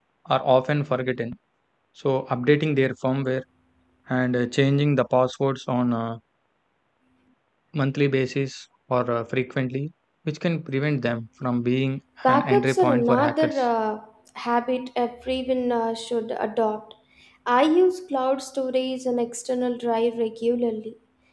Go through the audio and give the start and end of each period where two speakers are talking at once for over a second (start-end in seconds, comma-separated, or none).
12.2-13.6